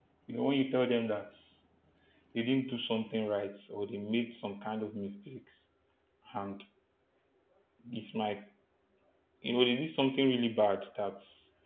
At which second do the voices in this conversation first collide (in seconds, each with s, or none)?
none